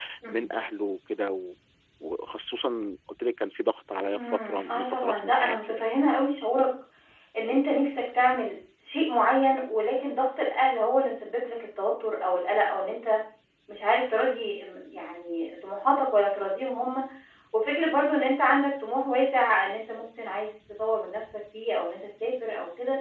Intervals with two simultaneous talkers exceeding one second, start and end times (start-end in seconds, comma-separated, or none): 4.2-5.8